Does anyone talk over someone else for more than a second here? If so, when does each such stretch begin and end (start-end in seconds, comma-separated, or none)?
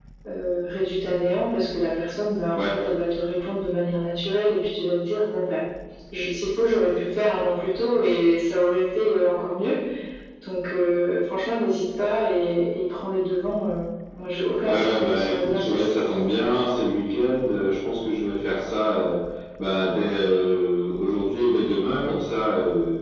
14.6-16.2